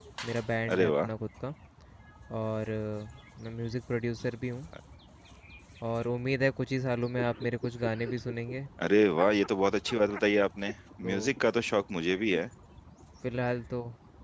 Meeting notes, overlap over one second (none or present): none